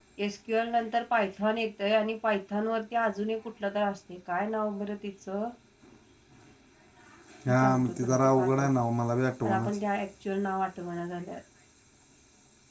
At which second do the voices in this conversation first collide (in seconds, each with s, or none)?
7.5 s